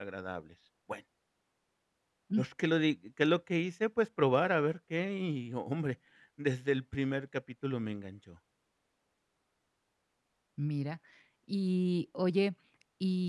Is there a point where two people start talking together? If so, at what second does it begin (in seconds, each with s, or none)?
none